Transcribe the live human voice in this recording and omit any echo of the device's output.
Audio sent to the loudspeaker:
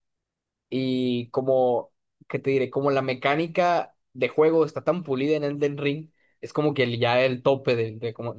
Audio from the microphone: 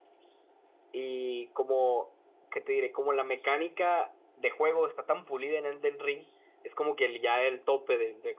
none

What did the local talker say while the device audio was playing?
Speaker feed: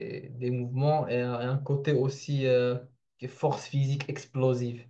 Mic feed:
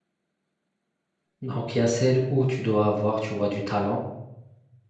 Donc, il y a celle où tu dois avoir, tu vois, du talent

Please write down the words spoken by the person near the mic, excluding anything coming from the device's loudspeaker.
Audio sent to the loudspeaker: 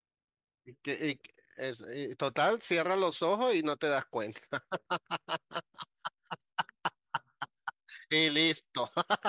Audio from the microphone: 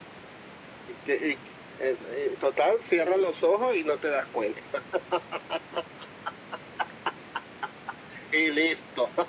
none

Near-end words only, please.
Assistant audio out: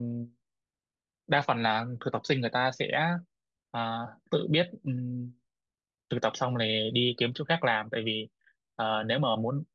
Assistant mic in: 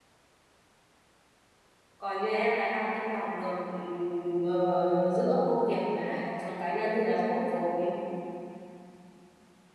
còn như em là đang cân bằng được ừm, ờ, giữa công việc với lại cuộc sống cá nhân thì là tốt rồi

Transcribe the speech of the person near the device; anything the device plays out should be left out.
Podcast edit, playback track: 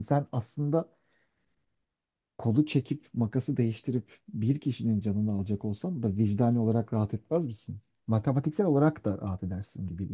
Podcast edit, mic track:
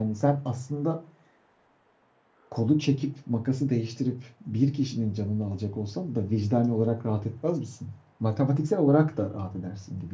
none

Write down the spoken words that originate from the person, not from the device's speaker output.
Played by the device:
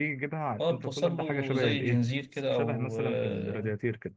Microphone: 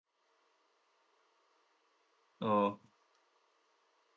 اه

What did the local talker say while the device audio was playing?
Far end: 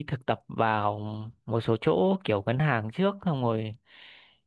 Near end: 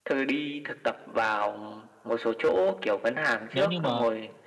nếu như mà

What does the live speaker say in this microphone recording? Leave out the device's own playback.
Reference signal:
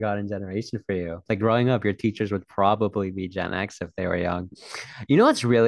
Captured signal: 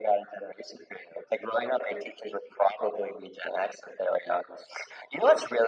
none

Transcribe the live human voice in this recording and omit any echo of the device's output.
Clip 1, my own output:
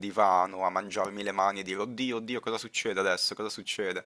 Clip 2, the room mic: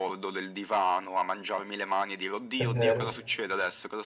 è vero.

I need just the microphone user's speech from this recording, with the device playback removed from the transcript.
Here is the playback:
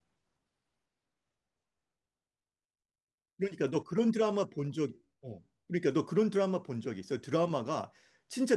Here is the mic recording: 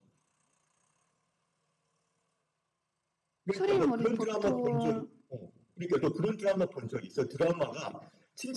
추리인물이 보통

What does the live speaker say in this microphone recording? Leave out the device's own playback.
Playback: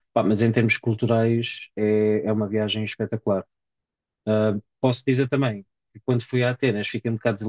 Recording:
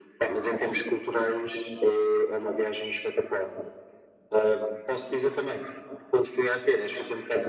none

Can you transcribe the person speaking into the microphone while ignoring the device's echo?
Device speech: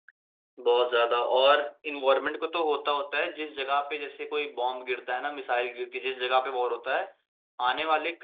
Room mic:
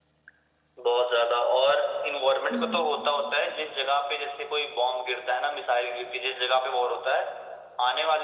हम्म, हम्म।

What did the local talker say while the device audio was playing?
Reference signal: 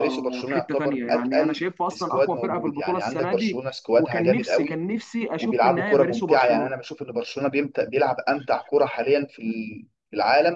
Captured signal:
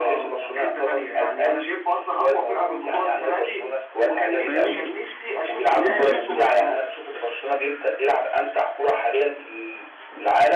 فاهمني طب انت شايف

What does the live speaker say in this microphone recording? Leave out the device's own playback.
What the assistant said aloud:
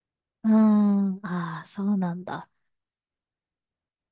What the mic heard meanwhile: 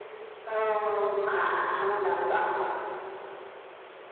none

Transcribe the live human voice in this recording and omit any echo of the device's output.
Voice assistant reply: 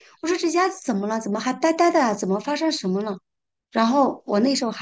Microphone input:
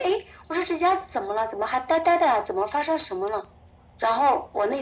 none

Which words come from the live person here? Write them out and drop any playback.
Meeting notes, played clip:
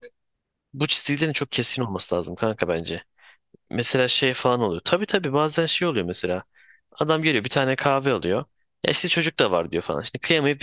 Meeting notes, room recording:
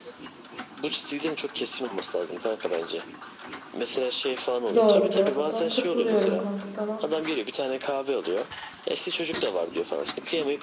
Doğru bu arada. Katılıyorum kanka sana.

